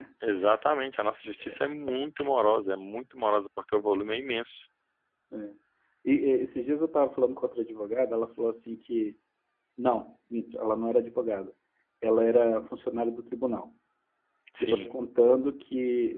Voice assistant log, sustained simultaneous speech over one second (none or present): none